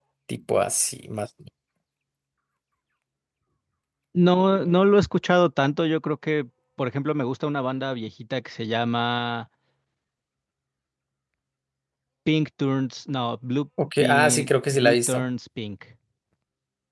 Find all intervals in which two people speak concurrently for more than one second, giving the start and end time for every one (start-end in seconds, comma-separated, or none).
14.0-15.2